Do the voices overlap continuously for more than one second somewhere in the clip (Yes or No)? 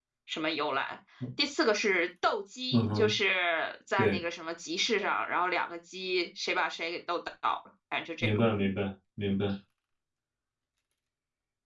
No